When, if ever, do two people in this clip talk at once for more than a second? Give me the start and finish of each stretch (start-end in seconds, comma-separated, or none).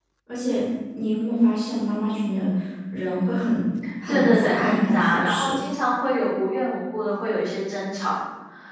4.1-5.5